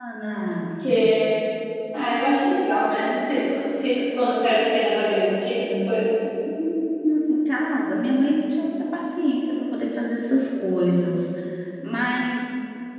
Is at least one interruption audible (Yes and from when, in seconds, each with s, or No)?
No